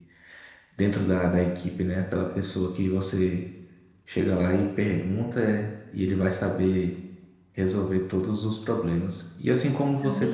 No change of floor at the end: Yes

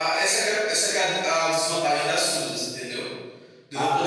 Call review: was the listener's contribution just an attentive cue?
No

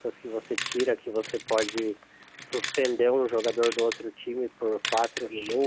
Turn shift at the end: No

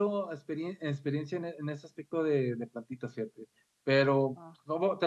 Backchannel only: Yes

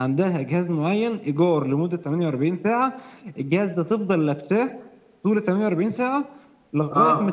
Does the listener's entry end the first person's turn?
No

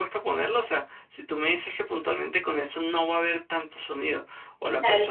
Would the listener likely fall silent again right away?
Yes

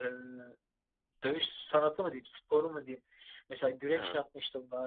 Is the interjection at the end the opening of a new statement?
No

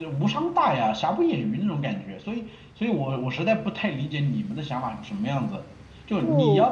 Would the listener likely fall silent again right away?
Yes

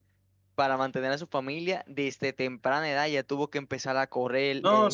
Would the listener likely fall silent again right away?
No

